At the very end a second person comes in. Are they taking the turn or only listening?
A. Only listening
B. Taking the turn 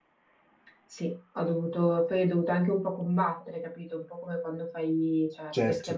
A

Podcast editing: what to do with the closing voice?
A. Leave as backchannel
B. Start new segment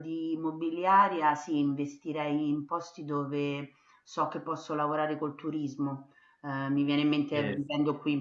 A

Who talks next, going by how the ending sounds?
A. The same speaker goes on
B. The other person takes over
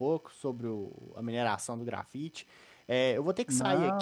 A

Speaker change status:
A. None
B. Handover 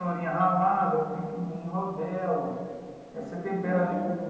A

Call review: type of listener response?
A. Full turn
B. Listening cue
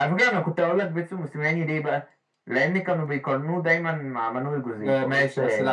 A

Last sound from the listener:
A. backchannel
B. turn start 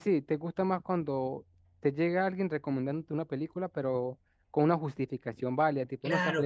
B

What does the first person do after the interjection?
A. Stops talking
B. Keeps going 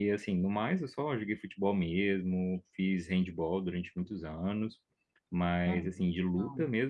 B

